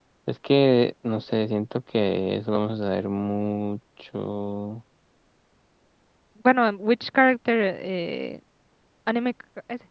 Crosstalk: none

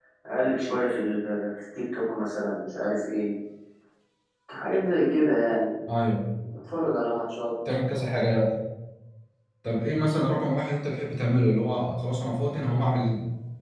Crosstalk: none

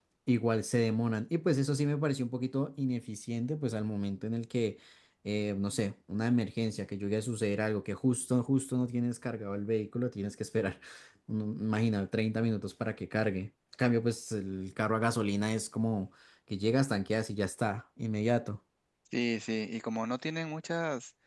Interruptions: none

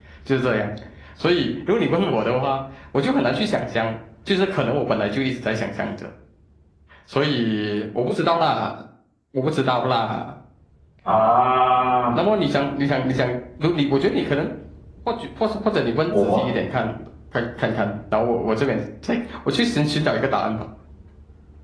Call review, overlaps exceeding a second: none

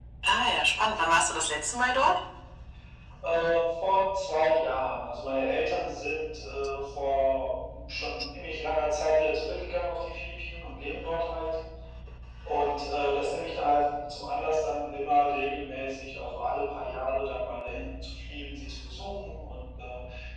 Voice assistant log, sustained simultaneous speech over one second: none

